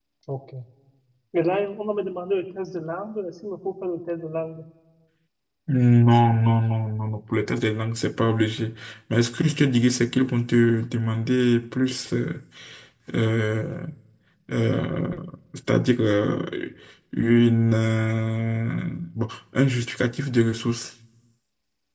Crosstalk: none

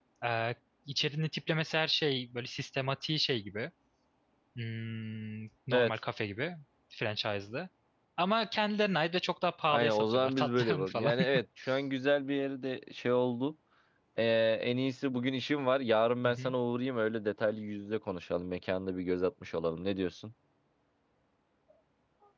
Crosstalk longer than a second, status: present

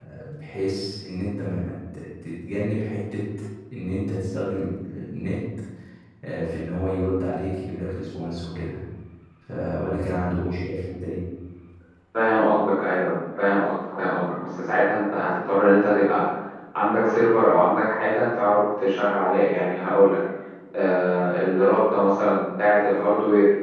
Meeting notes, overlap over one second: none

